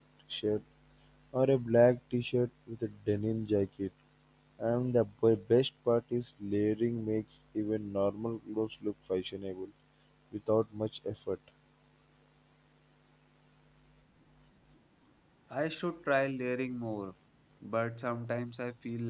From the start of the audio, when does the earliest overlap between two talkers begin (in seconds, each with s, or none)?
none